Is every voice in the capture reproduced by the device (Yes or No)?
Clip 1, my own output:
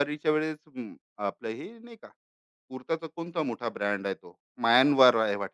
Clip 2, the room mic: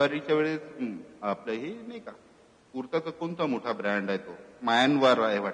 Yes